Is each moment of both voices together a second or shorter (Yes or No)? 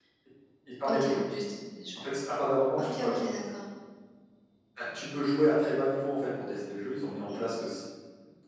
Yes